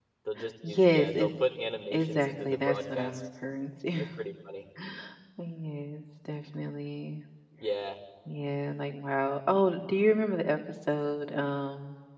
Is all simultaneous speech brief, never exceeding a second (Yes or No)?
No